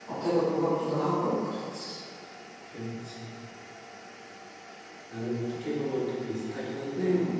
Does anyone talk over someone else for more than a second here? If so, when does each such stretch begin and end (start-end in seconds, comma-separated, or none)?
none